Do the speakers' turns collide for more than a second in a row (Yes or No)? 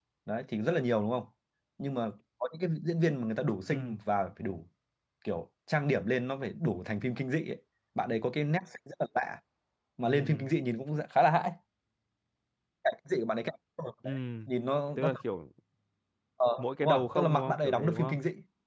Yes